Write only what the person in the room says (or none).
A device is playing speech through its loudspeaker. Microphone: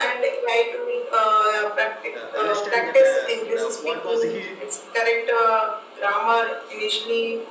uh, understand that la- uh, what was he